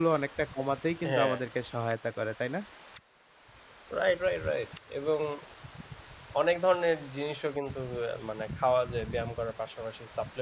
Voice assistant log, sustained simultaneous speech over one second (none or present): none